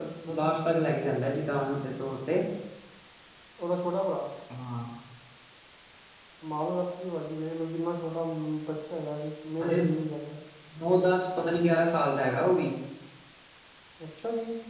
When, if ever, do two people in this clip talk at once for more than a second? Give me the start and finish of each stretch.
none

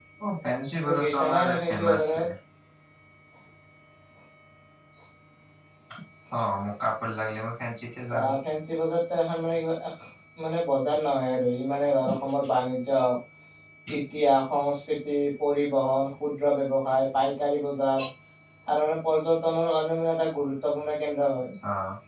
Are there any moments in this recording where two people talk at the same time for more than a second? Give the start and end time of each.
0.8-2.2

